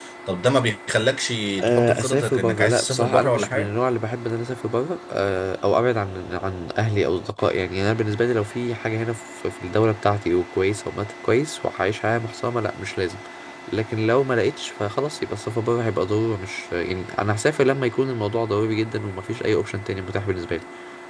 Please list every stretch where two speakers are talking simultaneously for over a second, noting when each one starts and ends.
1.6-3.7

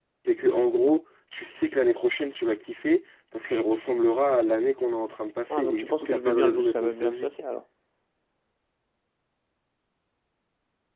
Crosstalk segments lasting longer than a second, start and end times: 5.5-7.3

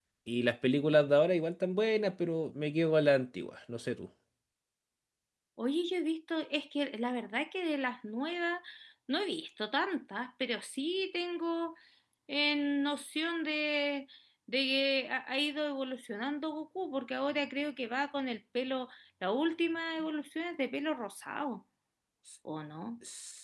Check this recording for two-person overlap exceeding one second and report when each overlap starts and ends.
none

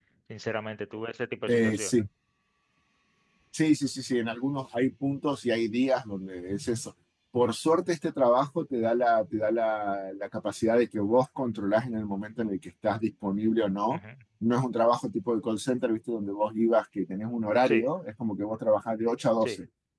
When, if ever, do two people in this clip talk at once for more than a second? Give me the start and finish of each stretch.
none

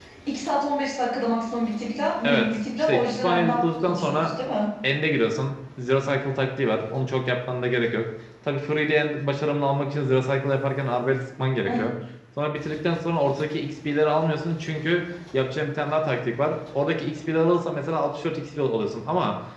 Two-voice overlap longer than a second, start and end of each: 2.2-4.3

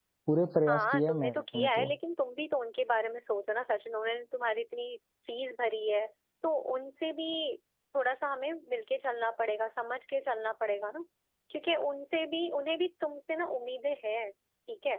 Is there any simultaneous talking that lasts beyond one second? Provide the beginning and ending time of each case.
0.7-1.9

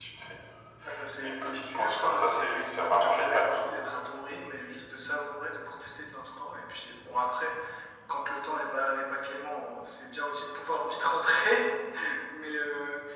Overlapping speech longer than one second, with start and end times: 1.2-3.7

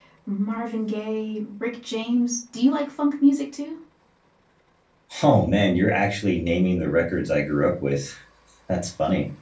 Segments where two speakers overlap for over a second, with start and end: none

